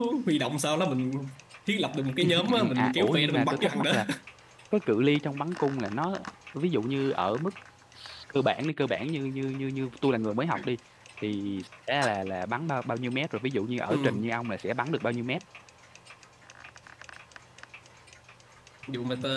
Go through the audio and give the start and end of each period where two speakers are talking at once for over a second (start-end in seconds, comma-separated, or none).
2.2-3.9